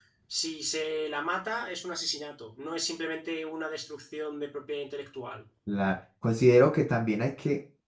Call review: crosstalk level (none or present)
none